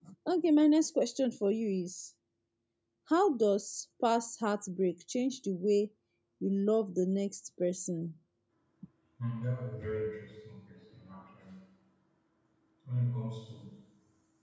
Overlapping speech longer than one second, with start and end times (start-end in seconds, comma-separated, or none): none